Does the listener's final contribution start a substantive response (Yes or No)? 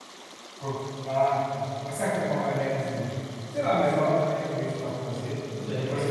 Yes